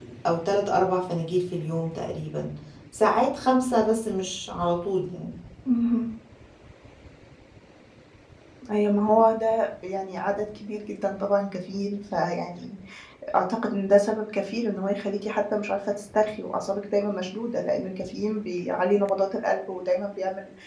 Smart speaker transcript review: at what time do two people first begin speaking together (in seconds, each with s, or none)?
none